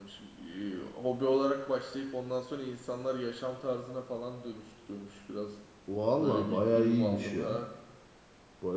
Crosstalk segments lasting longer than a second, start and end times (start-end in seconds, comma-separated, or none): 6.2-7.6